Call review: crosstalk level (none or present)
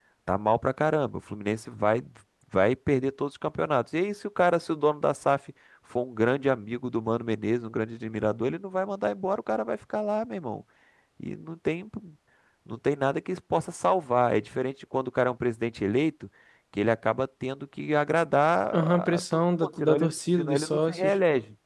present